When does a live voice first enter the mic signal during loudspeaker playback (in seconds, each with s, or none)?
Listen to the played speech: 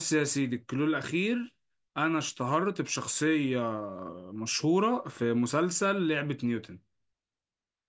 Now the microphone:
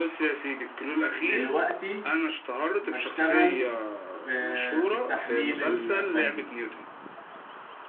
1.2 s